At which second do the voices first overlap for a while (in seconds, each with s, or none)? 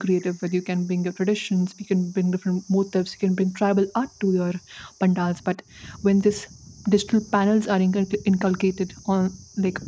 none